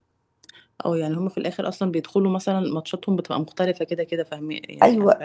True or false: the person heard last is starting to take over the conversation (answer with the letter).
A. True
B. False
A